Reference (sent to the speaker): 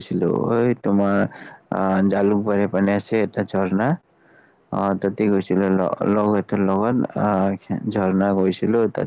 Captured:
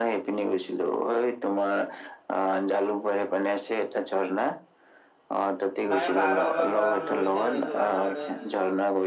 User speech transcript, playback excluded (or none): মানে পাহাৰৰ ওপৰৰ পৰা মৰিছে ন, এইটো কাৰণে মানে